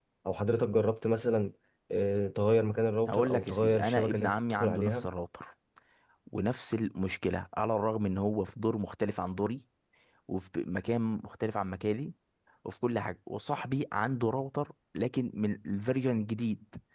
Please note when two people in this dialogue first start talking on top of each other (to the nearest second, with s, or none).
3 s